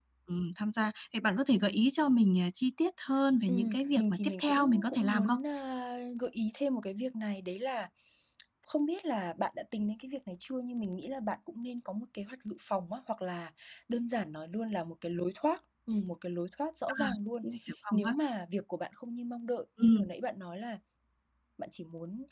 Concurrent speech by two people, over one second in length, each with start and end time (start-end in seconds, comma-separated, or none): 3.5-5.4